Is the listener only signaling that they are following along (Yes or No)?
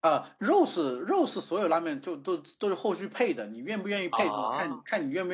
Yes